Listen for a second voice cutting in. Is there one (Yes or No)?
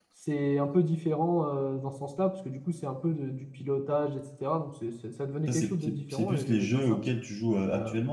Yes